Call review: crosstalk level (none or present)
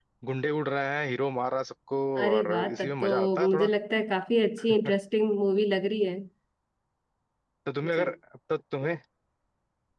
present